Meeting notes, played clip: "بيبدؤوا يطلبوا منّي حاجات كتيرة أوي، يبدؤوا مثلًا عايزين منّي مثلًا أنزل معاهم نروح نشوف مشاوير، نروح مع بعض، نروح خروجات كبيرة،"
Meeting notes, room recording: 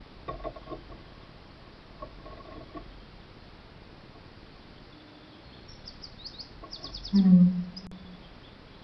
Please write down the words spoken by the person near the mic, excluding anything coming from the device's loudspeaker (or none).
إمم.